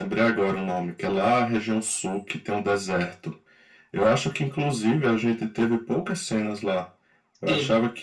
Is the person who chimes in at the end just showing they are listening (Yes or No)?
Yes